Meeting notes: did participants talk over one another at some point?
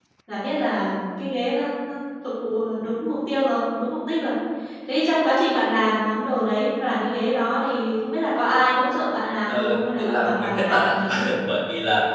Yes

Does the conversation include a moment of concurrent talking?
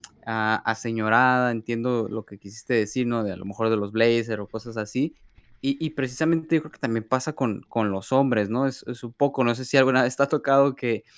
No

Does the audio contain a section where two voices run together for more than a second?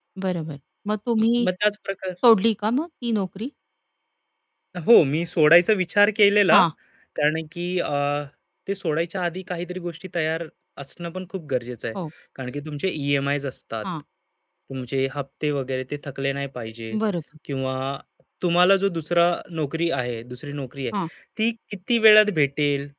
No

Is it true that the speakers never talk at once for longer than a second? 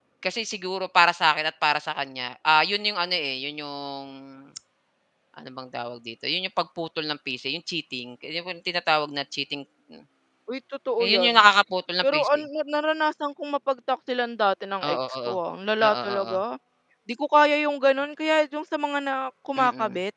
Yes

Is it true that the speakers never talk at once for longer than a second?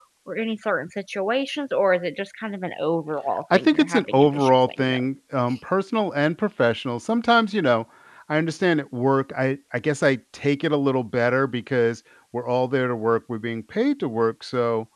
No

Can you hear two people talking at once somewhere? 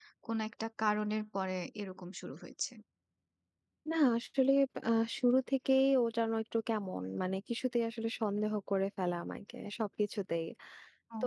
No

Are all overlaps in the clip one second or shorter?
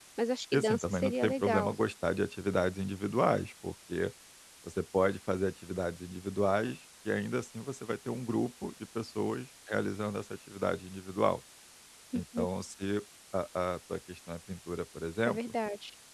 No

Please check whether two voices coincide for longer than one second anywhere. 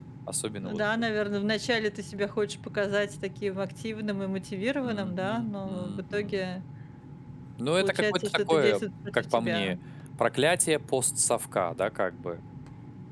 Yes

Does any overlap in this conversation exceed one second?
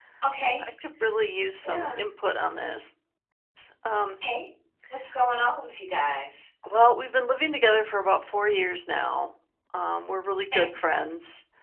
No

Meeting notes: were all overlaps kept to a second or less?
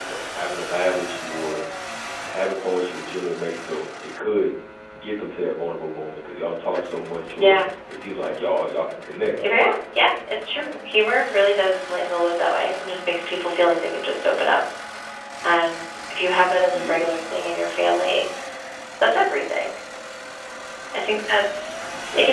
Yes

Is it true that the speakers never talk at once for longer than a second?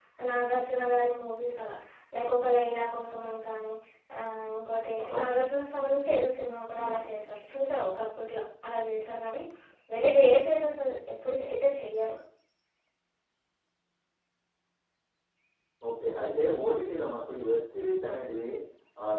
Yes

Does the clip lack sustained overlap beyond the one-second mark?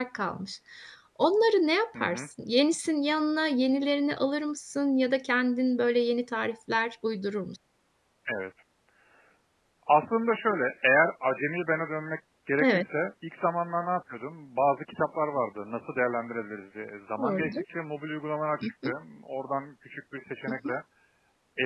Yes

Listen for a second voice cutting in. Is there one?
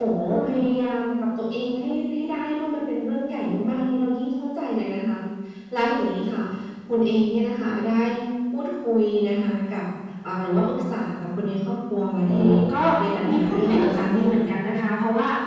Yes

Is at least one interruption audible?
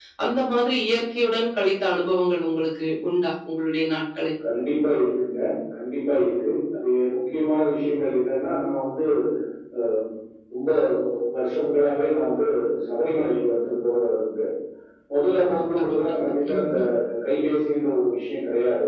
Yes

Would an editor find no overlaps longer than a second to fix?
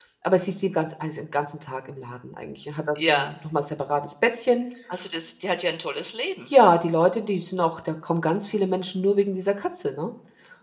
Yes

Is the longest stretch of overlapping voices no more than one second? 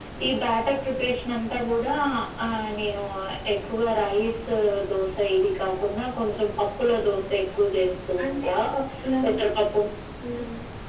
Yes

